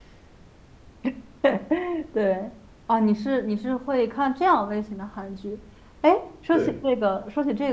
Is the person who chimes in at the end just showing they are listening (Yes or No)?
Yes